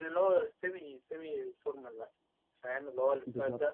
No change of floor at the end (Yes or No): No